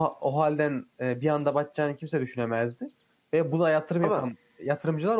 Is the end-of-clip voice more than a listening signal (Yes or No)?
No